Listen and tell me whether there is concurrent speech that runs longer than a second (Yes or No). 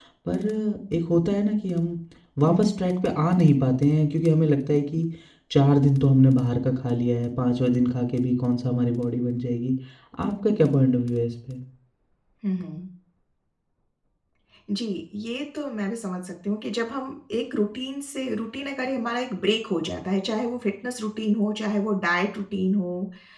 No